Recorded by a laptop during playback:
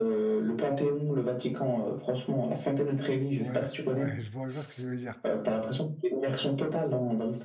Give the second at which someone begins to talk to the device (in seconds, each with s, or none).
3.4 s